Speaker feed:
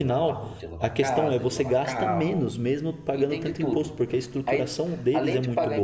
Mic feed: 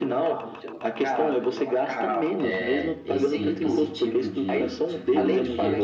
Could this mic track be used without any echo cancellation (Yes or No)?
No